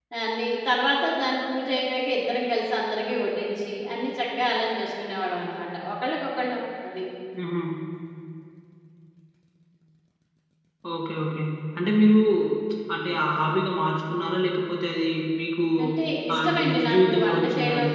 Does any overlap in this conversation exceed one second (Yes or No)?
Yes